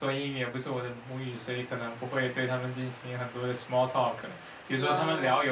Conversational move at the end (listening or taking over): listening